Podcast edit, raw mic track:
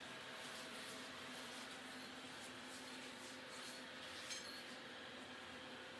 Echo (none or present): none